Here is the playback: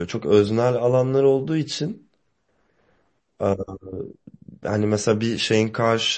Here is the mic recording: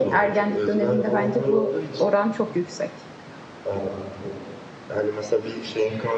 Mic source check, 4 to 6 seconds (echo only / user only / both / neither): echo only